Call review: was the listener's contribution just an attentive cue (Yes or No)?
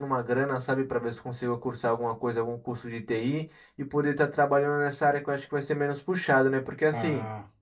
Yes